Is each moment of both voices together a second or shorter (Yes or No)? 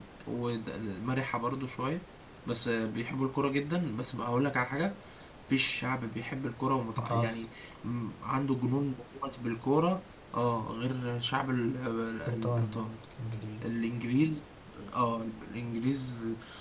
Yes